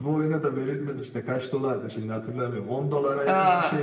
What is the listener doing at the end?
taking over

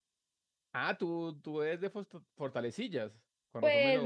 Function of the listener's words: taking over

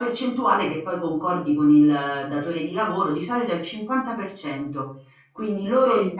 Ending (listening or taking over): listening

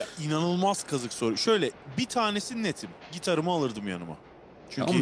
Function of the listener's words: taking over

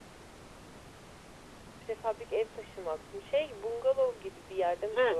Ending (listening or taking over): taking over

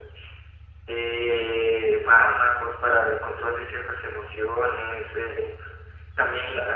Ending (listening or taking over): listening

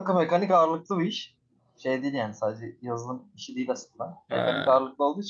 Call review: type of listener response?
listening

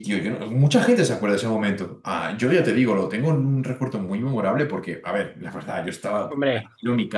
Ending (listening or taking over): listening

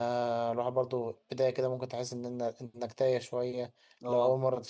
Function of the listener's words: listening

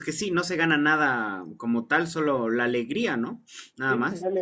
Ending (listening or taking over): taking over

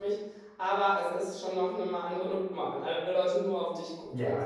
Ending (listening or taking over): taking over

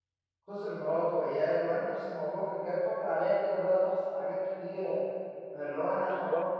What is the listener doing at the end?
listening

